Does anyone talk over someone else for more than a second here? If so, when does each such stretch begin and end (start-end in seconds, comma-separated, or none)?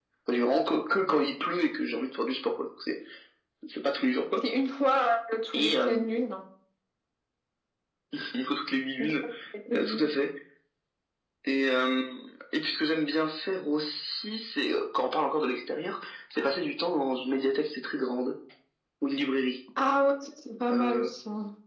none